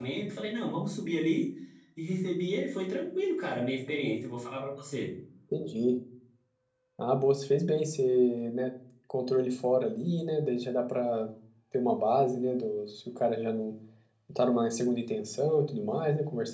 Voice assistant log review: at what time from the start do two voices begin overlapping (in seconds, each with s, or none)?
none